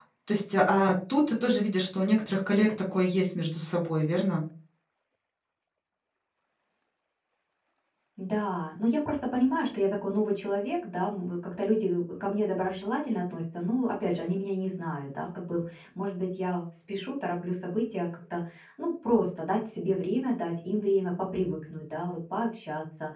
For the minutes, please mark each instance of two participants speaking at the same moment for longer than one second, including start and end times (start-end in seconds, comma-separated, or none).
none